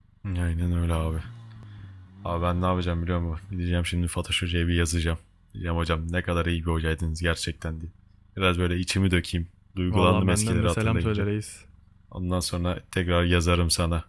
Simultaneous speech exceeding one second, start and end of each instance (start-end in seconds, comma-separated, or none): 9.9-11.3